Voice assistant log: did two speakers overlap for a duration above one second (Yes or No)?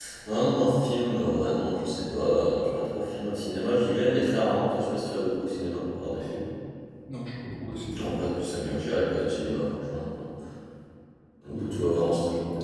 No